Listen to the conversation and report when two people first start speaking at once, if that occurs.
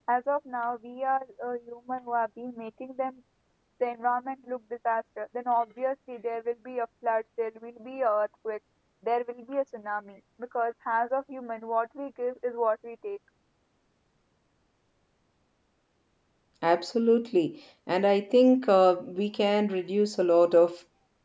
none

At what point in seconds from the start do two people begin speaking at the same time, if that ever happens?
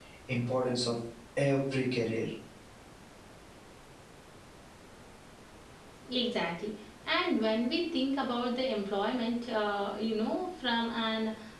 none

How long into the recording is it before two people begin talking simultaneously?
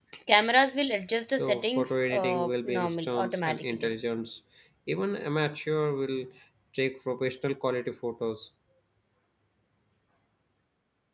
1 s

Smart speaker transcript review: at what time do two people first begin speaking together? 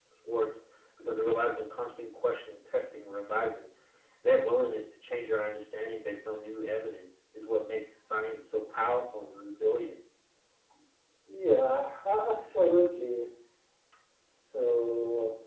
none

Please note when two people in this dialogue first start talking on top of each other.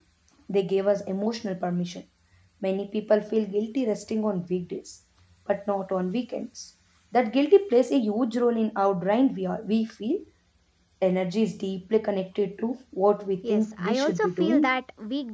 13 s

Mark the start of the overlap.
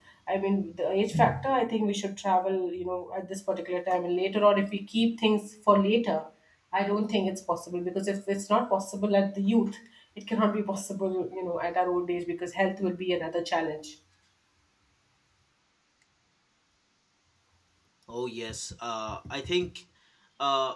none

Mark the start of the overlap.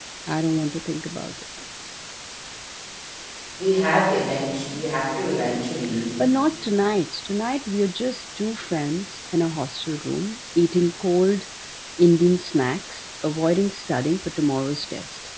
none

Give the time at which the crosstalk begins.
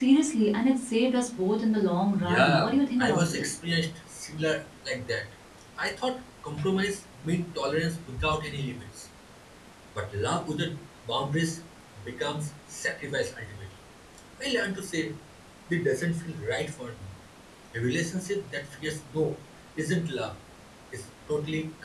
2 s

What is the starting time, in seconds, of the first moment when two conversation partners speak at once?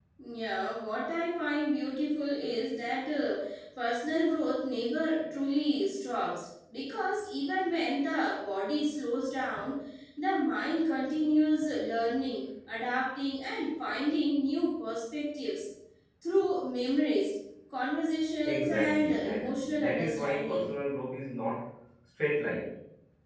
18 s

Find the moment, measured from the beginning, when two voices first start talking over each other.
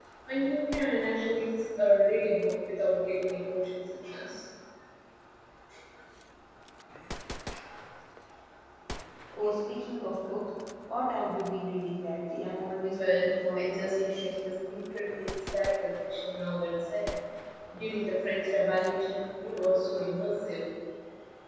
13 s

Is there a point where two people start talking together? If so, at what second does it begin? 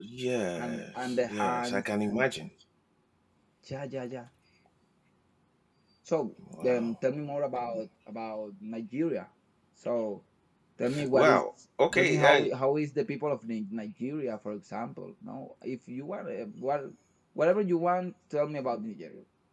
1 s

